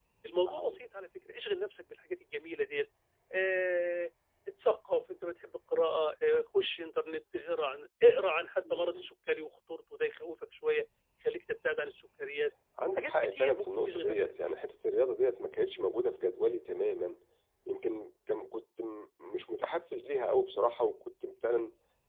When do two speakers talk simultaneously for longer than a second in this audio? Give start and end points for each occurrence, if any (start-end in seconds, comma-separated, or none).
13.0-14.5